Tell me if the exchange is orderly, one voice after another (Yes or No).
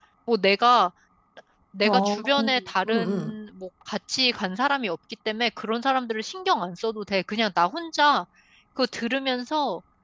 No